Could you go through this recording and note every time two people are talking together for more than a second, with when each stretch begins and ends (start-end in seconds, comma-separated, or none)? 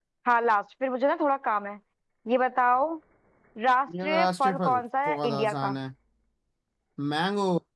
4.0-5.7